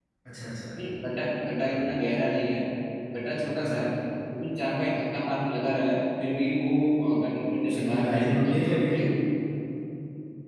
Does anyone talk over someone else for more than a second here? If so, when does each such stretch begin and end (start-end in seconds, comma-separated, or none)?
7.7-9.0